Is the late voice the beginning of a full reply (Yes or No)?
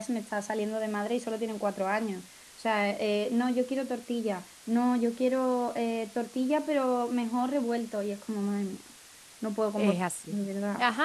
Yes